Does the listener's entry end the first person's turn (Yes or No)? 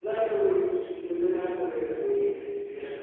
Yes